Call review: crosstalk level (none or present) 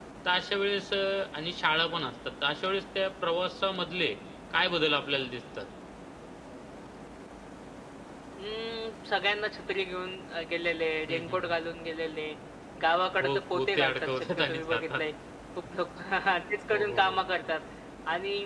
present